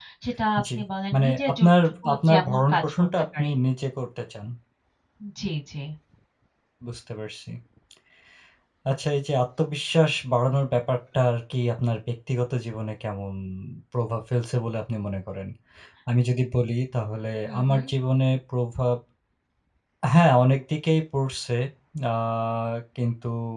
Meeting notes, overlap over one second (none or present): present